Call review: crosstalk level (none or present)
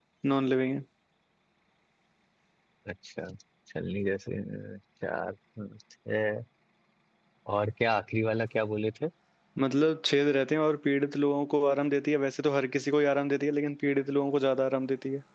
none